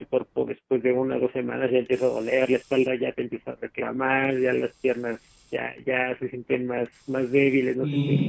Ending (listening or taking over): taking over